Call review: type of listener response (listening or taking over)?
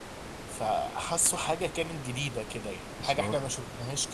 listening